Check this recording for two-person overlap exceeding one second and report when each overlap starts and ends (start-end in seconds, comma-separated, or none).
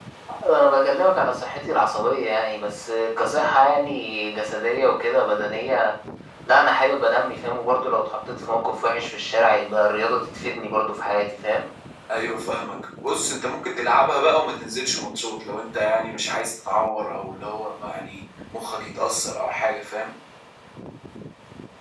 none